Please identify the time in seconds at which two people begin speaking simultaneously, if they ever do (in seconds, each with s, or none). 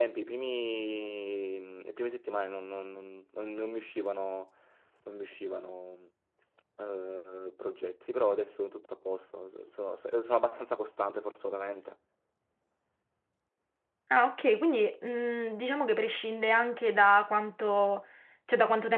none